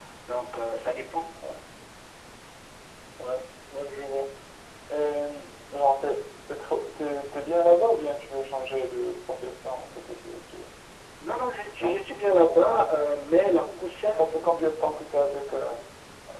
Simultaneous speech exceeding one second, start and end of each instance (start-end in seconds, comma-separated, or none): none